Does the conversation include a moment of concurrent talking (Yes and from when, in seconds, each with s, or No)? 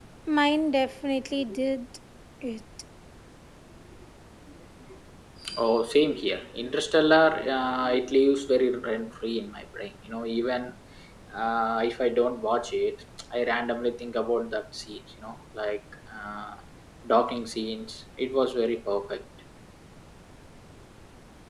No